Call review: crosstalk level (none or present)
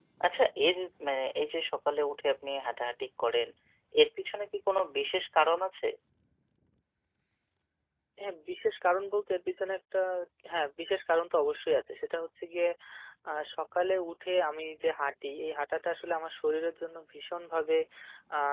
none